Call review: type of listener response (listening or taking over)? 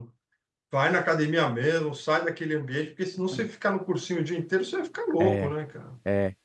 taking over